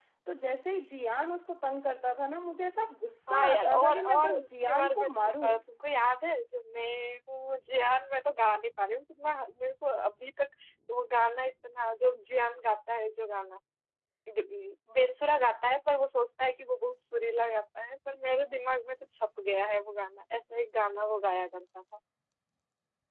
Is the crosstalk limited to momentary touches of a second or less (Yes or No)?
No